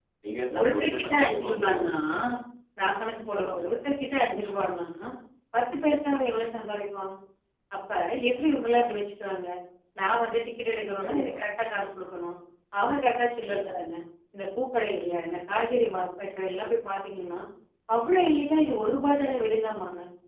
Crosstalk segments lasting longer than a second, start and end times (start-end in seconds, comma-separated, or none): 0.6-1.9